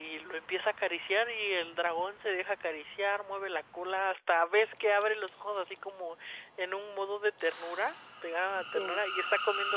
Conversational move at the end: listening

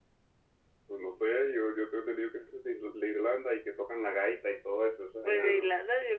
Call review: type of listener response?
taking over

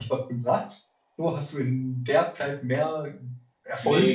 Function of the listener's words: taking over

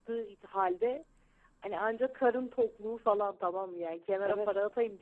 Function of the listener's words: listening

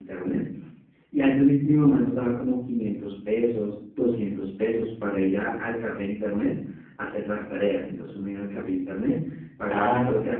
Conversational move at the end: taking over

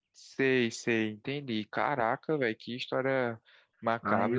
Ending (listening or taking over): taking over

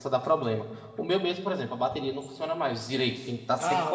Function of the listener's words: taking over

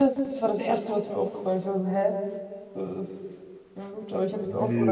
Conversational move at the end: taking over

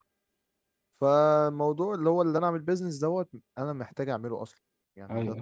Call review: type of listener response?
taking over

